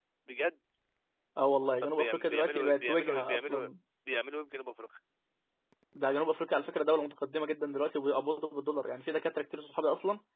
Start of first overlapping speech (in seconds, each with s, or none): 1.8 s